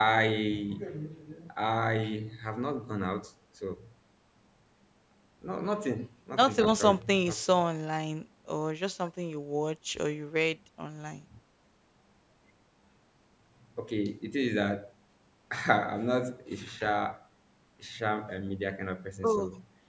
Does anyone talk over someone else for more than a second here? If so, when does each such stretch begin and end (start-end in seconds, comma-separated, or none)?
6.4-7.6